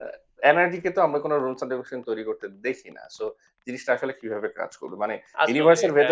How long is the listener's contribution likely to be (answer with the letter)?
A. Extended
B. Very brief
B